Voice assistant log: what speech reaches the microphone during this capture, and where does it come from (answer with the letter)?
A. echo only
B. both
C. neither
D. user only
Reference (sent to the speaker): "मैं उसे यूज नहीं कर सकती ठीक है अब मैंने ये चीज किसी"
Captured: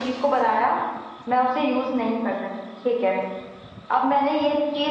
A